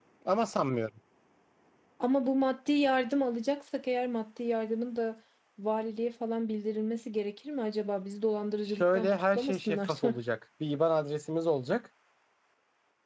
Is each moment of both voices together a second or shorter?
No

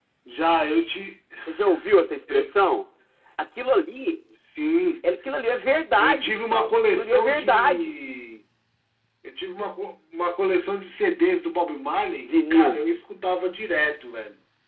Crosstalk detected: Yes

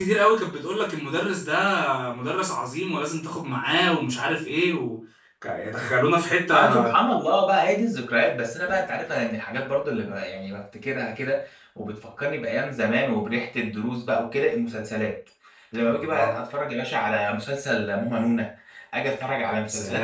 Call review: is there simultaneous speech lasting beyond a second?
No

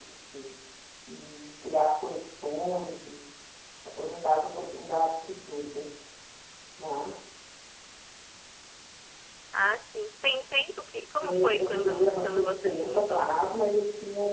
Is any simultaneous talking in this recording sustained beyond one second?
Yes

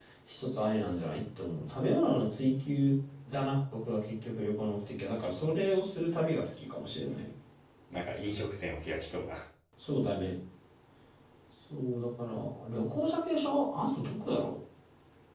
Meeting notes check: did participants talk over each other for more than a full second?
No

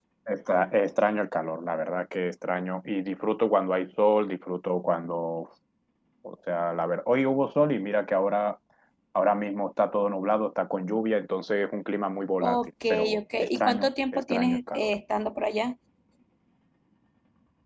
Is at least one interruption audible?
Yes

